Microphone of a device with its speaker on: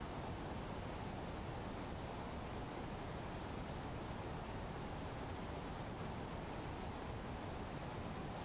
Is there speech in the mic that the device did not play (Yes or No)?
No